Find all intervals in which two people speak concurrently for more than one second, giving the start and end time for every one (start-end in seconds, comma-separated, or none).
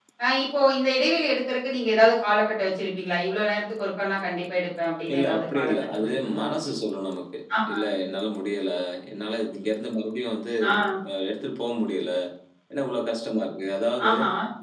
5.1-6.5